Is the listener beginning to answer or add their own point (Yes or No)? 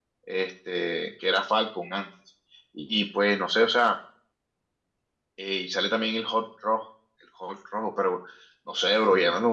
No